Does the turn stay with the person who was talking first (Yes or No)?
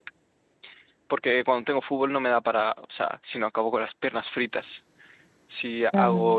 Yes